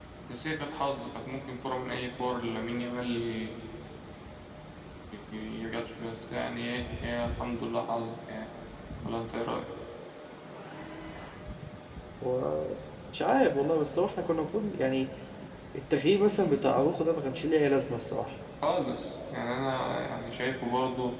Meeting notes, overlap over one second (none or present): none